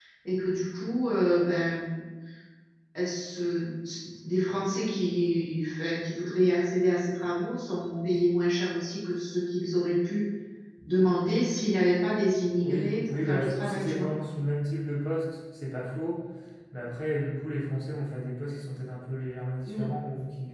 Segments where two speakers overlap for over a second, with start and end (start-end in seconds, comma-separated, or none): 12.6-14.1